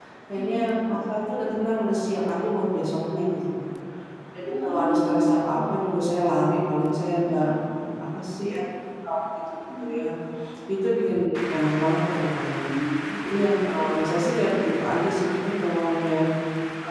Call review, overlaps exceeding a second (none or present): present